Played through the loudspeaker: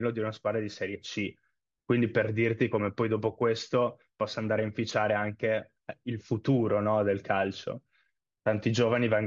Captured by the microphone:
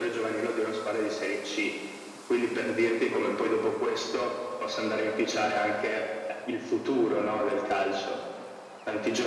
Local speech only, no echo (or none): none